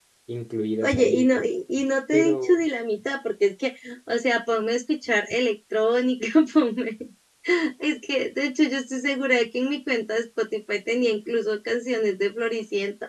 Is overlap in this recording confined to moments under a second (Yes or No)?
Yes